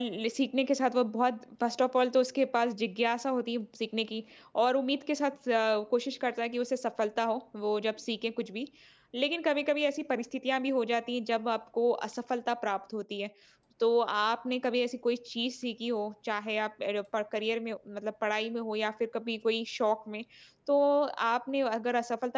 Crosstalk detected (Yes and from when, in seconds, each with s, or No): No